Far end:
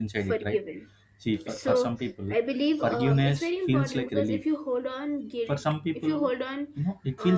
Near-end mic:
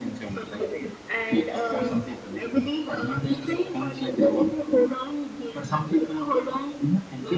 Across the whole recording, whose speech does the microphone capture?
both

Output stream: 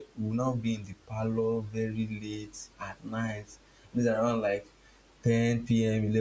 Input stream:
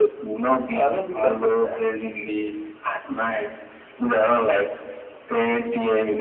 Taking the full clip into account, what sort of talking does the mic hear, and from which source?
both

